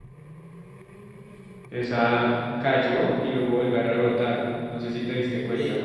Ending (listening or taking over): taking over